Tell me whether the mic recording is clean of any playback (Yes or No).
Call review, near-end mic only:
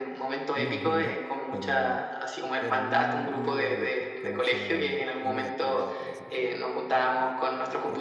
No